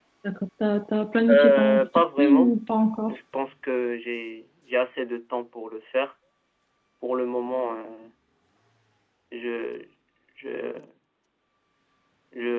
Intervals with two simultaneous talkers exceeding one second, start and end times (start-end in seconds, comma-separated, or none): 1.3-2.5